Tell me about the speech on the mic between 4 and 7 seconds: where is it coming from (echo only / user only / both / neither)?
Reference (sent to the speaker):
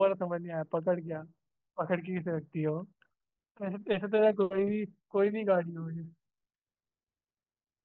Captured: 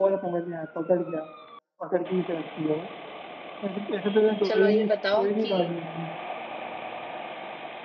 both